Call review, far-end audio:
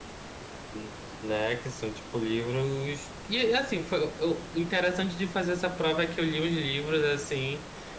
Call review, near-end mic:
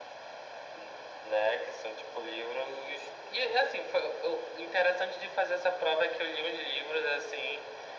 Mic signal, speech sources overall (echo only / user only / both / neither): echo only